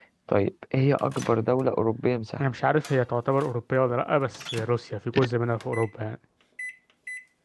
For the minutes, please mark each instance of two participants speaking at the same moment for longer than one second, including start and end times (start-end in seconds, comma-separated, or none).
none